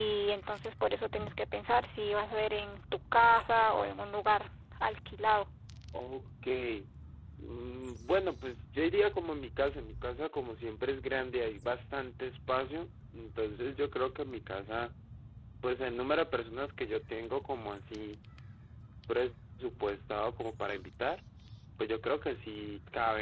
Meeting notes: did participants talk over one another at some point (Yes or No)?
No